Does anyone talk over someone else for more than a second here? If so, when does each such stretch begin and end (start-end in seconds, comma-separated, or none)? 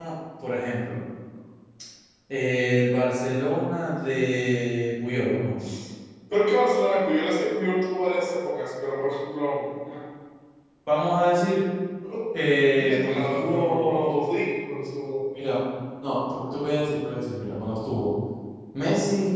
12.8-14.2